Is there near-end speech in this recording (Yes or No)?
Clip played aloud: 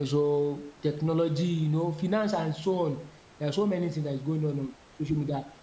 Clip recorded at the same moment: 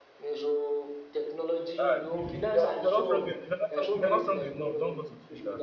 Yes